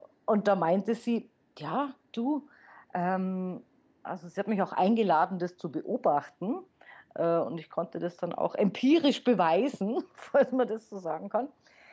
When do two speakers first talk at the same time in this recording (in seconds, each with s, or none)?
none